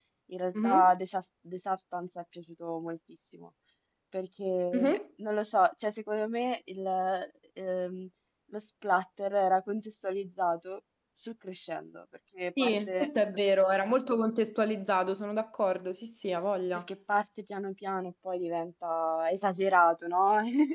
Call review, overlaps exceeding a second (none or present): none